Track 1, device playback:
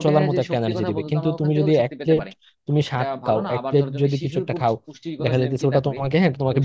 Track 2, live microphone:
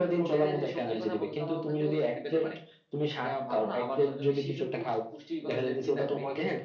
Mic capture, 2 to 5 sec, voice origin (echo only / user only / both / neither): echo only